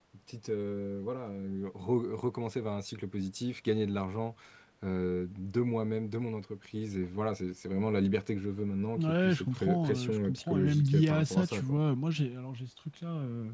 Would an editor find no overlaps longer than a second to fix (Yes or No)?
No